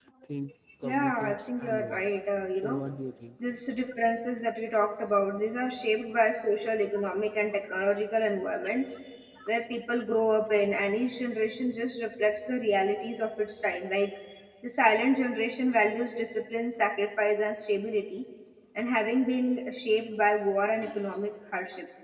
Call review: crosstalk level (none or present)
present